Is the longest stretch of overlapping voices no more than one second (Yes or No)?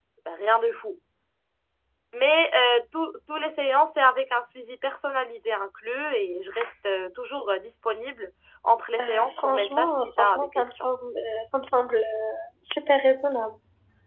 No